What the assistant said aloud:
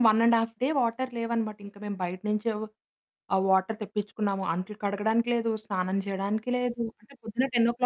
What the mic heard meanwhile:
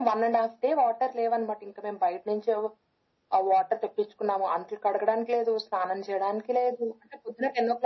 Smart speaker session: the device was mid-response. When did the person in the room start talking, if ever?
none

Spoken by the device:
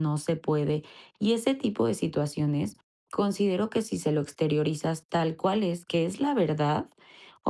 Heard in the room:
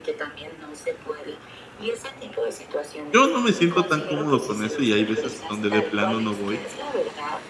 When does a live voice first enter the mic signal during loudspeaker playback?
3 s

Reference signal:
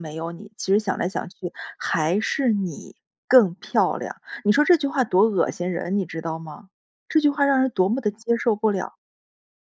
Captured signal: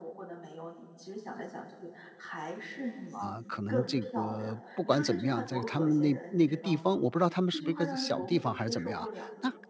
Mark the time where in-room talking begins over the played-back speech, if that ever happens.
3 s

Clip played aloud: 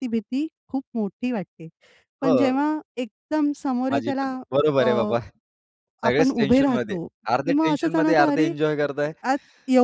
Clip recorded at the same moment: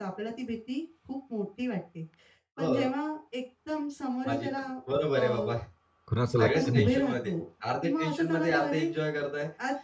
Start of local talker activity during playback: 6 s

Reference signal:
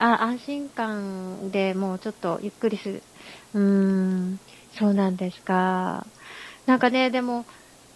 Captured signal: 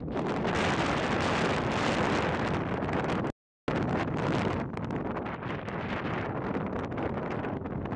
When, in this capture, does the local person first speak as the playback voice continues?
none

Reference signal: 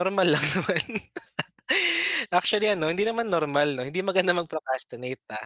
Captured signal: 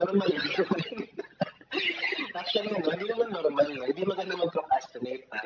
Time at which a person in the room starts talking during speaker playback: none

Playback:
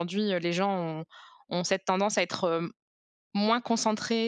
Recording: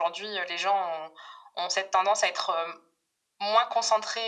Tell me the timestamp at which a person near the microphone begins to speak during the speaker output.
none

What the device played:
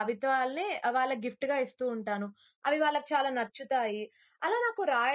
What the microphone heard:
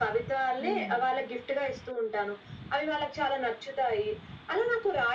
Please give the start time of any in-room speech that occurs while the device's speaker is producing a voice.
1 s

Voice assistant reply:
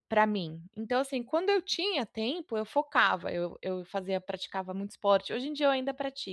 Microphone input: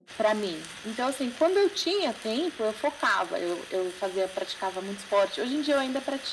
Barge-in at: none

